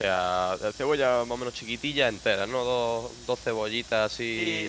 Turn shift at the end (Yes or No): Yes